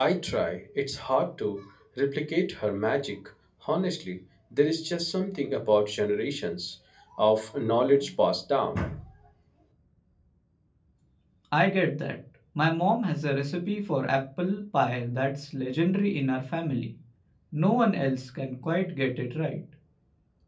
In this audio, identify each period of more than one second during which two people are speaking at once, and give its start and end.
none

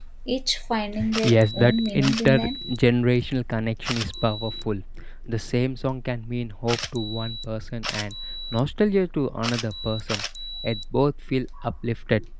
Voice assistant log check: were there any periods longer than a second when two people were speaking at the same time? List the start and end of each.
1.2-2.6

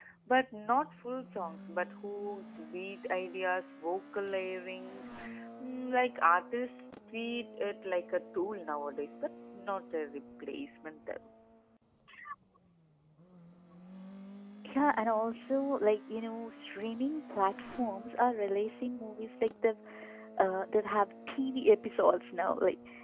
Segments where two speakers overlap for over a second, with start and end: none

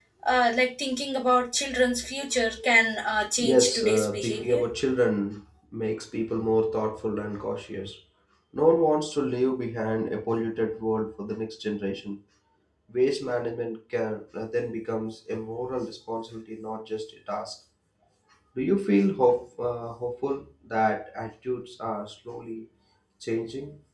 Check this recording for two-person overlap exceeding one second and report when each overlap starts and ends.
3.4-4.6

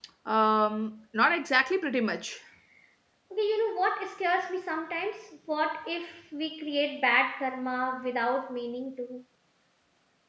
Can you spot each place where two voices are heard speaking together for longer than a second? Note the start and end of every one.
none

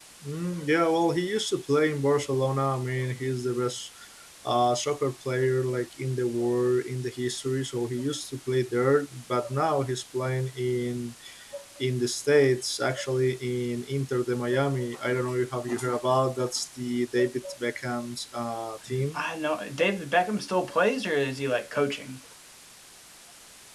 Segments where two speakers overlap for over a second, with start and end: none

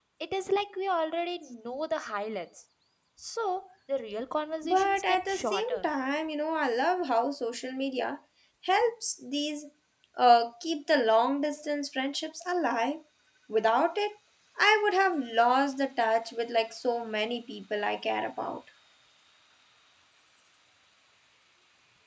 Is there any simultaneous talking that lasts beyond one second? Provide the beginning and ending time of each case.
4.6-5.9

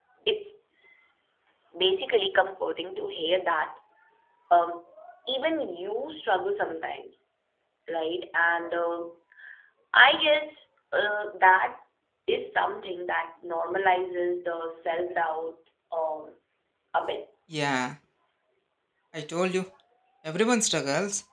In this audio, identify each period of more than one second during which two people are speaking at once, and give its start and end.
none

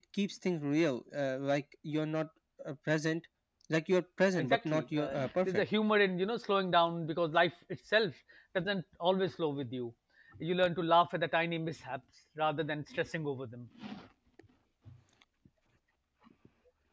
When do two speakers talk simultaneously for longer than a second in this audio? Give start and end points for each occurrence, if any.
4.4-5.6

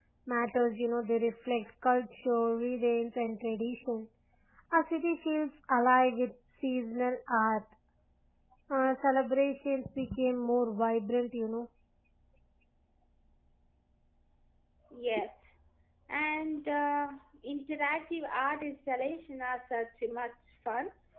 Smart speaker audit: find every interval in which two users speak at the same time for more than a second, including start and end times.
none

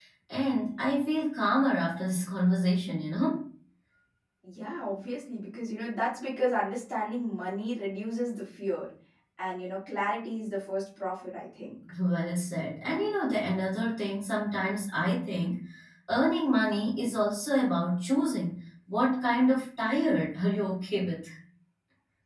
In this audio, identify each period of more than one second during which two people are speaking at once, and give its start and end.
none

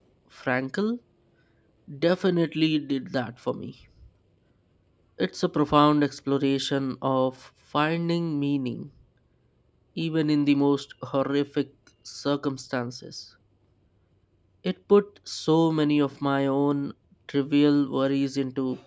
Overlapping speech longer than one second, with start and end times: none

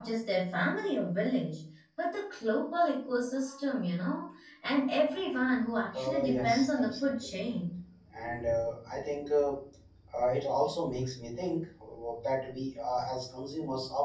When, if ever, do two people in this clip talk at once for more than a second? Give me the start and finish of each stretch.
5.9-7.3

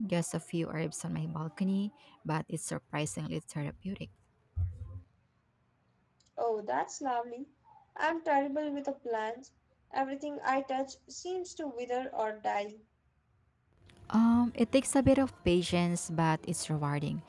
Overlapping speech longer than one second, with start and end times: none

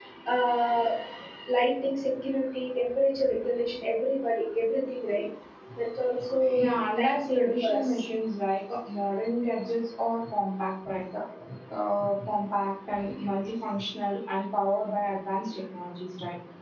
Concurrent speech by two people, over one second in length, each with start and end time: 6.5-8.0

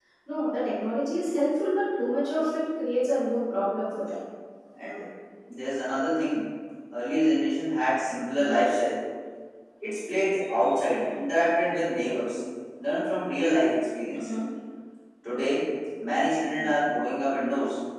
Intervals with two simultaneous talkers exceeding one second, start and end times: none

